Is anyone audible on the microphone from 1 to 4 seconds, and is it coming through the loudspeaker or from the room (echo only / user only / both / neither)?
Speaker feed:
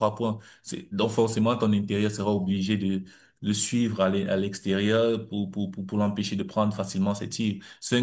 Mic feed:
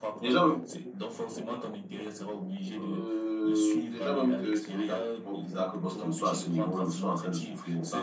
both